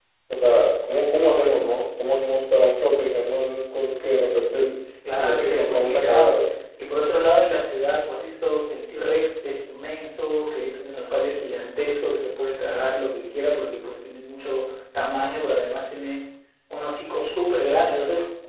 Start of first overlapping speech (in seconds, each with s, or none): 5.0 s